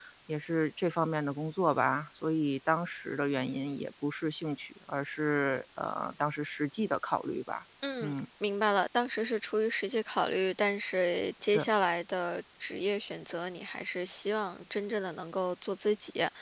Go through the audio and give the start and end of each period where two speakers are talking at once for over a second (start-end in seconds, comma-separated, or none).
none